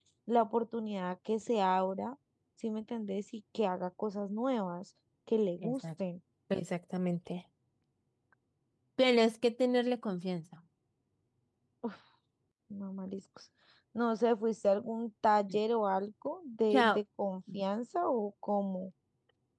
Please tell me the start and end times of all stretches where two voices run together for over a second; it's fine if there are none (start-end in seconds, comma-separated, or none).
none